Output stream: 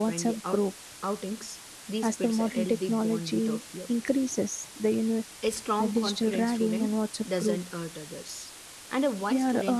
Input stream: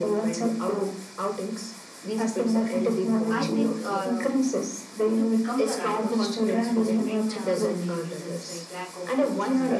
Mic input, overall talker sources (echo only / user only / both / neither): both